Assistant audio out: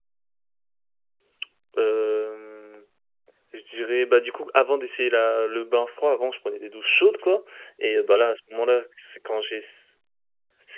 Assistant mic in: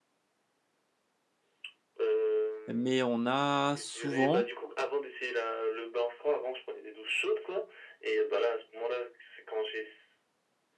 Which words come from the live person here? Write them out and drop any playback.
mais on a souvent,

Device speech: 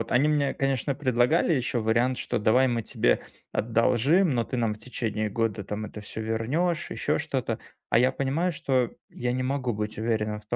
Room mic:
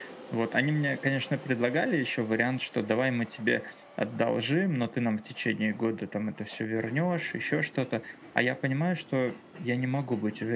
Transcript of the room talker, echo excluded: none

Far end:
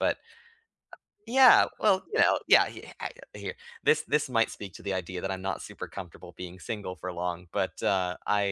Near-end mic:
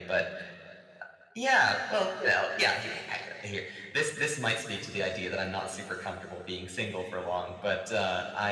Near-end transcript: none

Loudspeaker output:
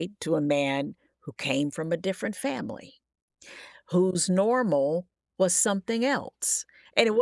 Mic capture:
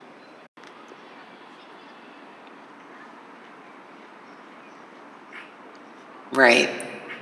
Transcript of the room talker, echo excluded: Right.

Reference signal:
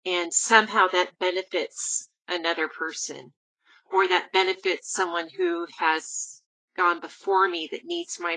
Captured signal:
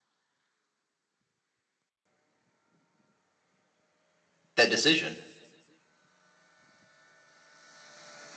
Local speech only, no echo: that decision?

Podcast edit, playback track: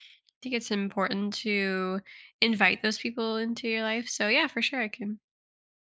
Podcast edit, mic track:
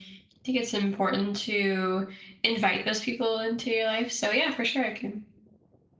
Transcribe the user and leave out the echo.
none

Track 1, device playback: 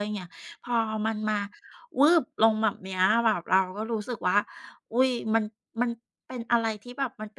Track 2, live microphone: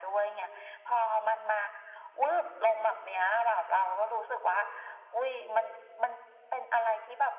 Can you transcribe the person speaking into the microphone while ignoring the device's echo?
none

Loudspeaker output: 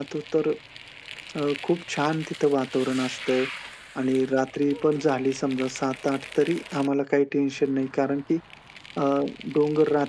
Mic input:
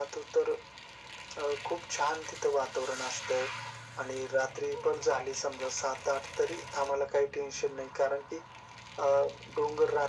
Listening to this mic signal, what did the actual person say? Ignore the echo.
none

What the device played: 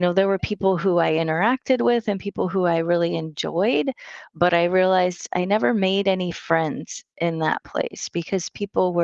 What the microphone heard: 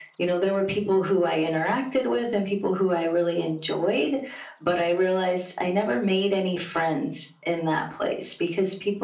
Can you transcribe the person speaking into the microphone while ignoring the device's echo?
none

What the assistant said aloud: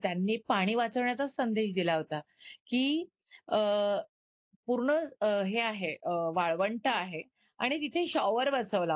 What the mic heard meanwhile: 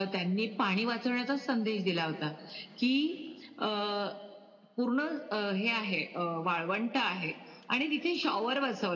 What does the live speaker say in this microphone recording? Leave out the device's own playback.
none

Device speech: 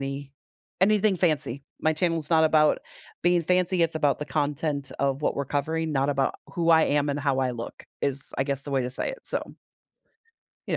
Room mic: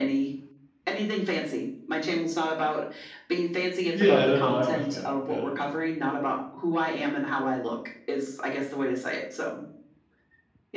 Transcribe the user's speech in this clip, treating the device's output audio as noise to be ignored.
Yeah, I don't know. I understand. Yeah.

